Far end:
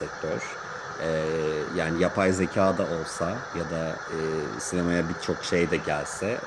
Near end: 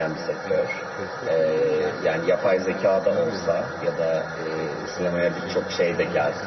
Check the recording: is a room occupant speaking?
Yes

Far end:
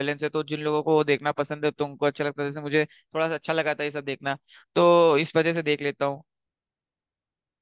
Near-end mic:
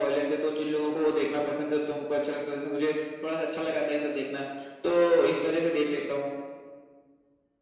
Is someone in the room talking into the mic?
No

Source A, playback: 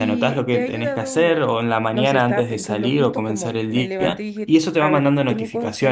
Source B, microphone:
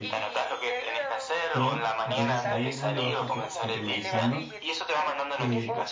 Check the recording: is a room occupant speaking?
Yes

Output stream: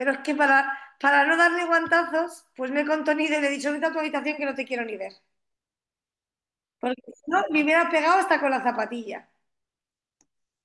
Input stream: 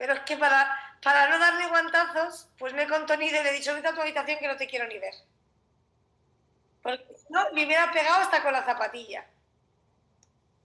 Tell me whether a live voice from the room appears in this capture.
No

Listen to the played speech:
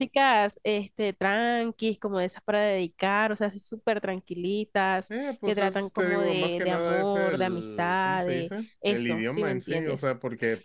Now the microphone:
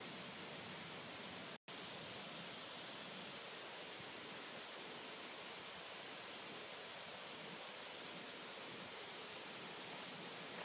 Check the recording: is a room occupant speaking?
No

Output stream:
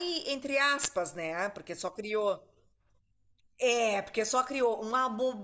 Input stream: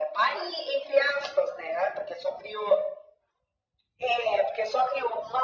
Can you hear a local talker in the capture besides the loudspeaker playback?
No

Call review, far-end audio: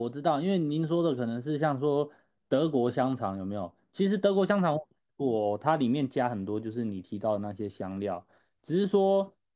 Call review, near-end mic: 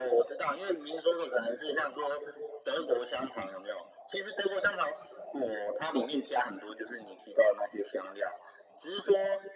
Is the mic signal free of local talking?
Yes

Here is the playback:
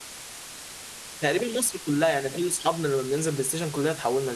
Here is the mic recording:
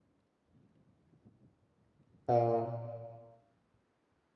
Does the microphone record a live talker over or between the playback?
Yes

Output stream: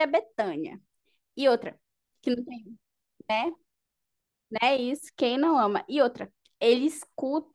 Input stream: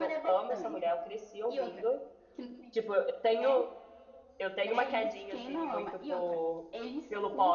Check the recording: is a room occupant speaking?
Yes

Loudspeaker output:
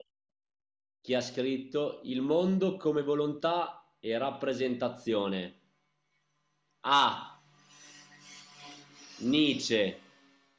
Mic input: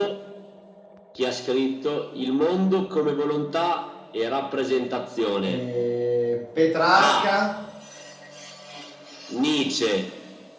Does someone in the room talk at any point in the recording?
Yes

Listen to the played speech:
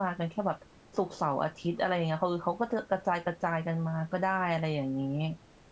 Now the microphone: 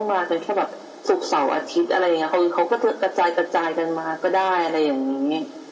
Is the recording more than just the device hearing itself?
No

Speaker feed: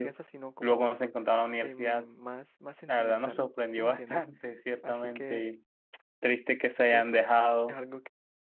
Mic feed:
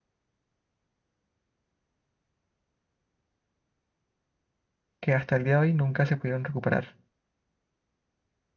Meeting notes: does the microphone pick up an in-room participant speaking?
Yes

